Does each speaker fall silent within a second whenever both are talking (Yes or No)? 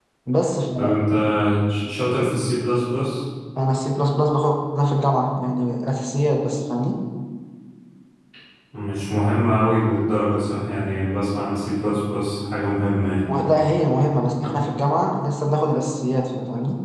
Yes